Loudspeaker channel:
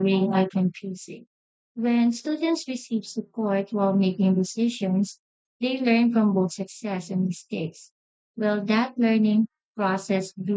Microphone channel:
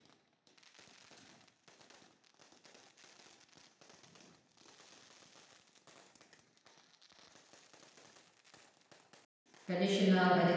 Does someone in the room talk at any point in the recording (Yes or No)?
Yes